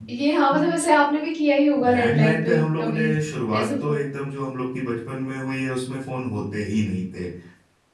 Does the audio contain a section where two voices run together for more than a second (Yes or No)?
Yes